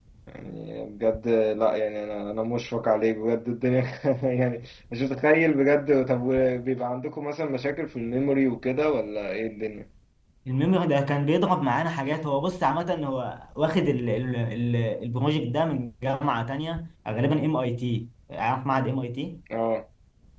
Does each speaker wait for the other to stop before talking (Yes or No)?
Yes